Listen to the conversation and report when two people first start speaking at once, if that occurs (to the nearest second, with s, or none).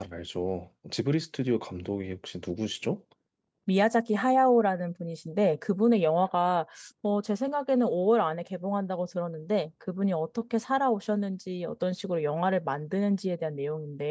none